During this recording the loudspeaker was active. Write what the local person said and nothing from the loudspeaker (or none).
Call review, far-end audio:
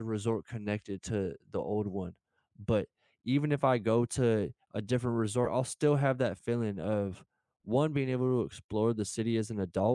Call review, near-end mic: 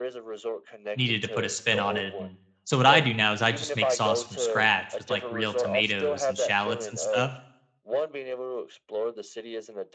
needed to put a spin on it and so what I do now is I just make sauce from scratch with, like, real tomatoes and shallots and stuff,